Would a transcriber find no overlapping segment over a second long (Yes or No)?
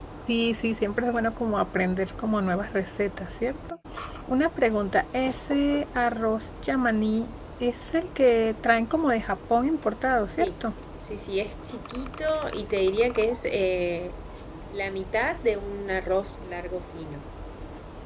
Yes